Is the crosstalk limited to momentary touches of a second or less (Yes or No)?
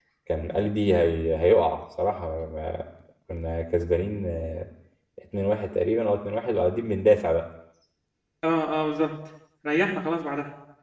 Yes